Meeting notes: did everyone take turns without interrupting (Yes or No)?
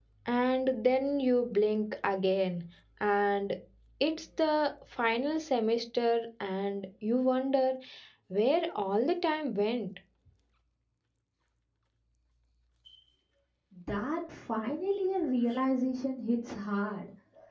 Yes